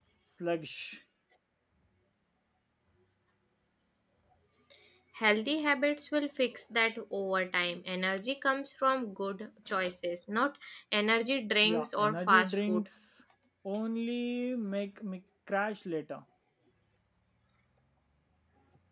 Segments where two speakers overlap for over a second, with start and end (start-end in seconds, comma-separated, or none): 11.6-12.8